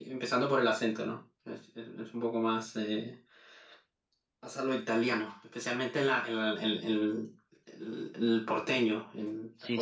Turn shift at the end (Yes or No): Yes